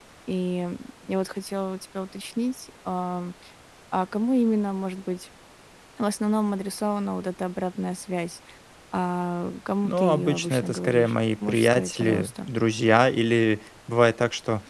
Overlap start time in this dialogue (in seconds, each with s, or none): 9.8 s